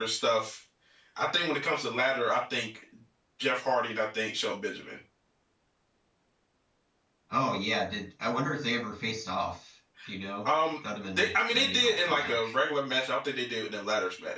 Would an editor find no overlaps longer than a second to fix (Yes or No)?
No